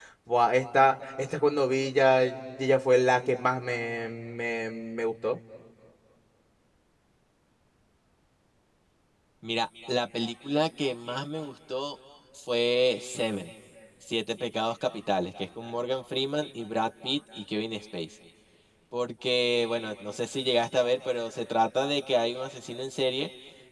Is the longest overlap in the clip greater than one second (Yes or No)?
No